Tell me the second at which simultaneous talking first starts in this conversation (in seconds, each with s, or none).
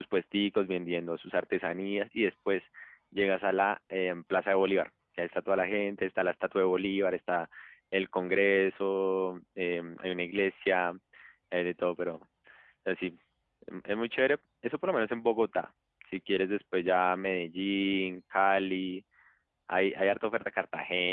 none